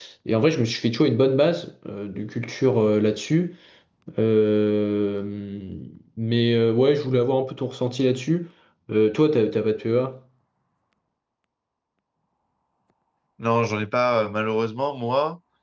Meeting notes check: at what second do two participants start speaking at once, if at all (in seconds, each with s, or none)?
none